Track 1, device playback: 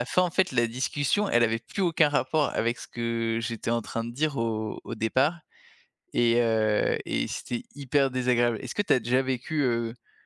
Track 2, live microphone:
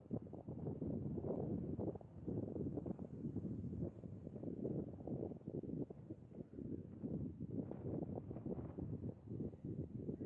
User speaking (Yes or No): No